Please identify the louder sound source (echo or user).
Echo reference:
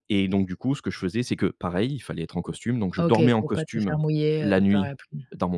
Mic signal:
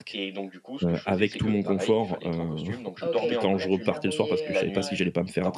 user